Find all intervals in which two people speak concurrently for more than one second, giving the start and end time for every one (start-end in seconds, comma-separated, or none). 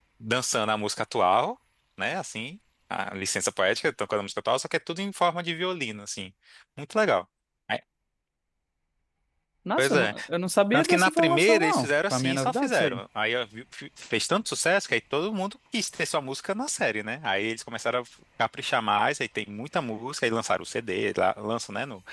10.7-13.0